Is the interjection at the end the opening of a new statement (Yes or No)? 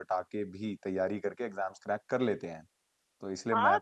Yes